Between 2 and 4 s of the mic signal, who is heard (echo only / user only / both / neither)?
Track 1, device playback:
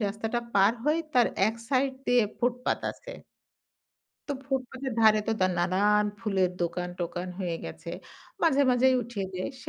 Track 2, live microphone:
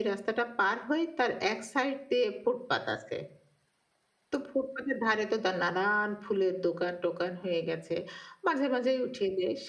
echo only